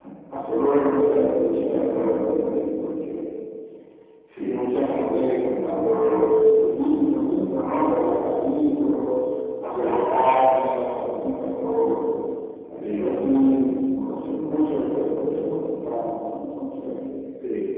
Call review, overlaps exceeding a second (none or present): none